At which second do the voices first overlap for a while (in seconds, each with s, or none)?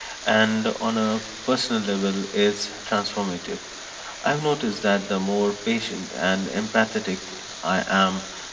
none